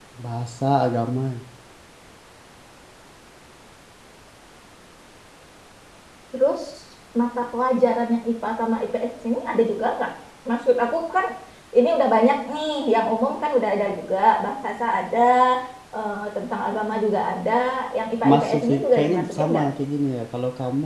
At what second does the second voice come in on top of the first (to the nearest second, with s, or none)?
18 s